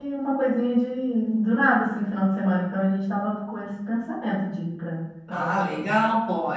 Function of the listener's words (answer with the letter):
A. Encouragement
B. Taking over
B